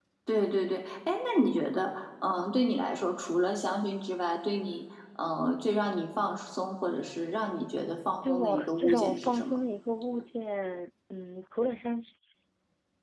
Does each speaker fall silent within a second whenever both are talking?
No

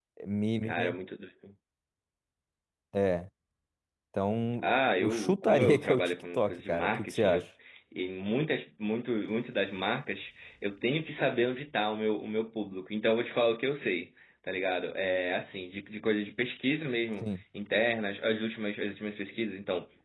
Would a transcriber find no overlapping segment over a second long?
No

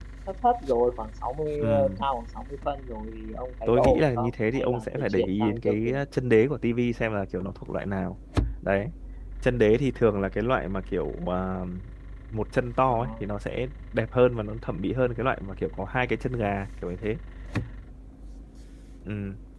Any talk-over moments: Yes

